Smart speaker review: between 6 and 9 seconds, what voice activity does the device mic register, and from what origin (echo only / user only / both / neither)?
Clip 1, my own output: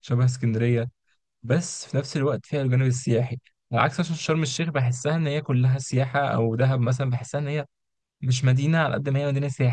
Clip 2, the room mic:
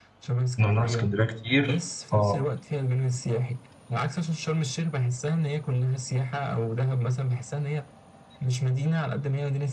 echo only